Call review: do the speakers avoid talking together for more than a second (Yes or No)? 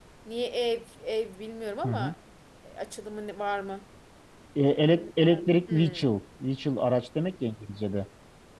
Yes